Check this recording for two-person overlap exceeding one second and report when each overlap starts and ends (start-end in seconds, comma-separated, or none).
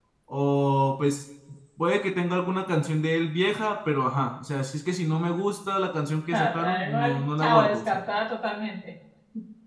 6.3-8.0